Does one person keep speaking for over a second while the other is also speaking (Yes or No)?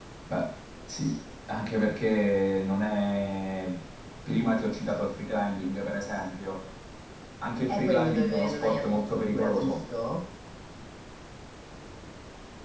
Yes